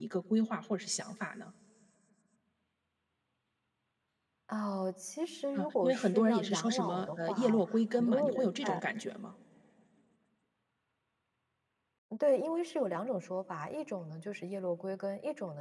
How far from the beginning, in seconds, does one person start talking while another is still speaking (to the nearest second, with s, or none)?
6 s